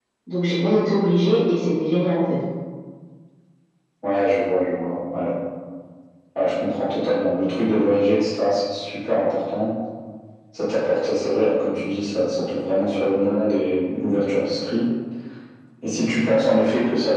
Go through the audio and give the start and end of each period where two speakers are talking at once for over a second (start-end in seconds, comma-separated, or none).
none